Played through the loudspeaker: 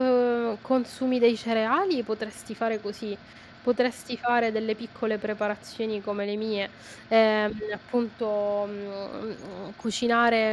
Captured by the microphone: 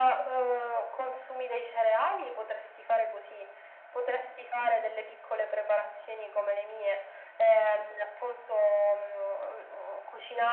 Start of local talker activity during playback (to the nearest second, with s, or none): none